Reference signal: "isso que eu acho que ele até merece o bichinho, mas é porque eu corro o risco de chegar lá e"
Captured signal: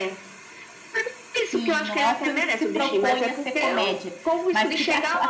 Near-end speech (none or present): present